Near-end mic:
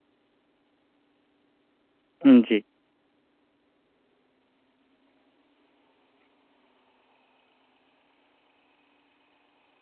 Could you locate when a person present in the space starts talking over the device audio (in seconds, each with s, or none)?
2.2 s